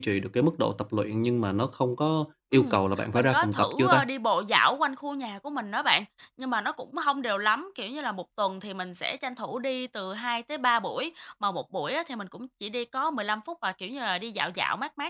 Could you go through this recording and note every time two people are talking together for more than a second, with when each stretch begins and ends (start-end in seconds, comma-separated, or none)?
2.5-4.0